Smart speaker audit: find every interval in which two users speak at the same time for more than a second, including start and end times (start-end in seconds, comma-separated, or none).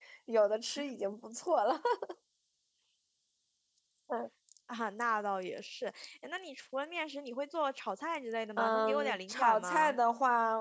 8.6-10.0